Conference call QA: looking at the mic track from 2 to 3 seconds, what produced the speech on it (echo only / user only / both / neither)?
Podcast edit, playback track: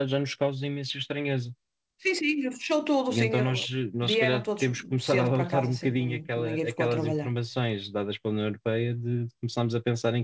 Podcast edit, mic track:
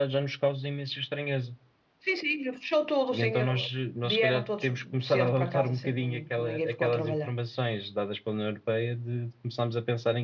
echo only